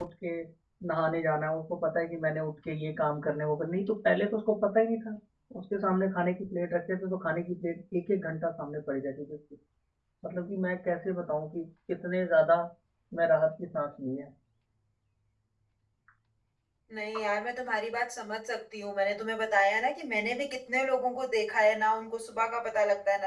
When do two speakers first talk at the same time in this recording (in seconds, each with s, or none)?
none